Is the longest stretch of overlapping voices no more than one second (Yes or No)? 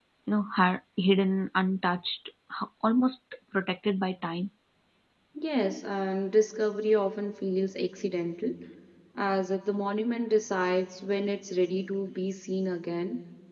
Yes